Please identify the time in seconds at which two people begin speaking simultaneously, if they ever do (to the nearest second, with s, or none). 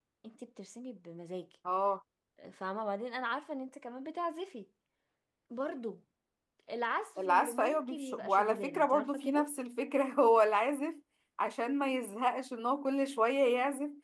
7 s